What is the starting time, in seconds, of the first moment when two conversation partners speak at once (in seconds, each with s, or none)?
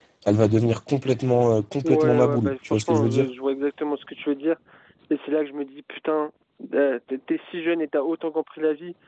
1.8 s